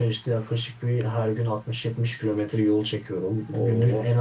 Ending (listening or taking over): listening